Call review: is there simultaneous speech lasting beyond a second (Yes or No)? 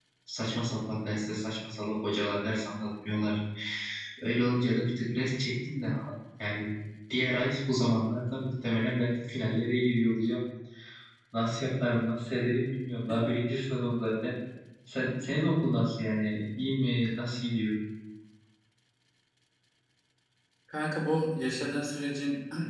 No